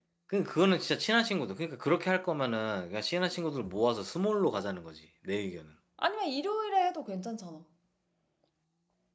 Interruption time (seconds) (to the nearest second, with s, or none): none